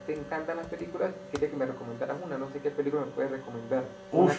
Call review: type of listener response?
taking over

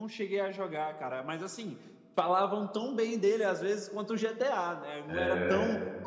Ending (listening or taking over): listening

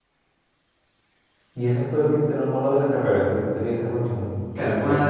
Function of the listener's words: taking over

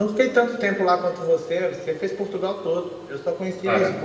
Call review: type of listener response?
listening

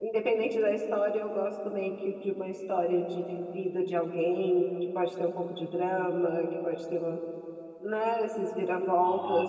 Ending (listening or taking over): listening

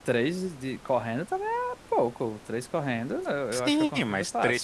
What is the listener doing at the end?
taking over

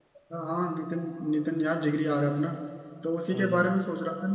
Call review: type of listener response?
listening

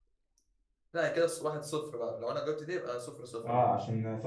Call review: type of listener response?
taking over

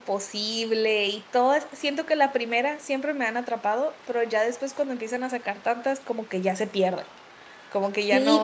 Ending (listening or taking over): taking over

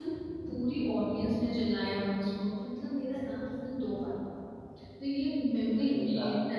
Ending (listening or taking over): listening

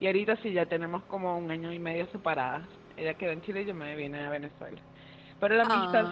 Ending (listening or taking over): listening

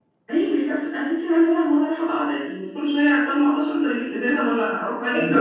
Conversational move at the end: taking over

